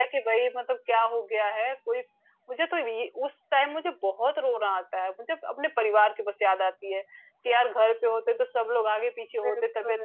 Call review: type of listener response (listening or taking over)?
listening